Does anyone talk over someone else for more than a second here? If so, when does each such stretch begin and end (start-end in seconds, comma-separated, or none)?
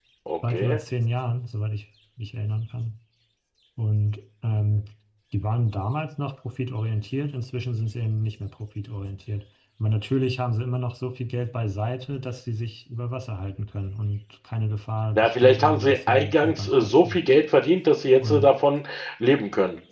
15.2-17.2